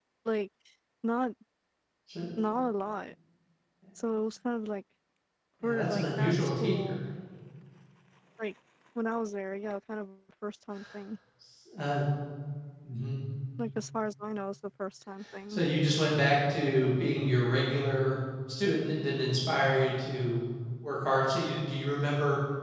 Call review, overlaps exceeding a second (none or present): present